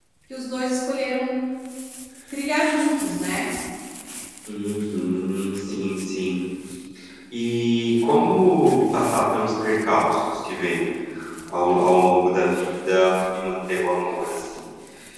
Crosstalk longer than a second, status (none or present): none